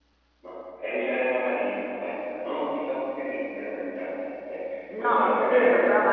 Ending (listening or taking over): taking over